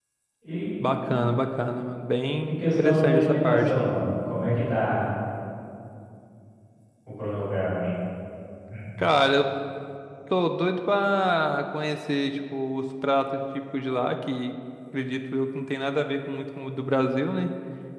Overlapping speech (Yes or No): Yes